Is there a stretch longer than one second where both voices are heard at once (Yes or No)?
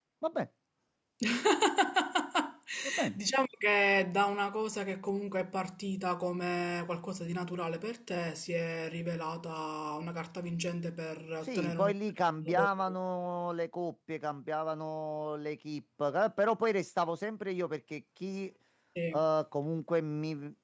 No